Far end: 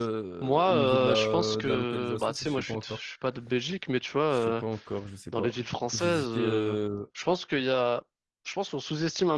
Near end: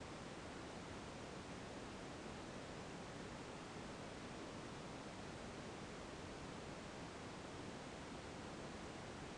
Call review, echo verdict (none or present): none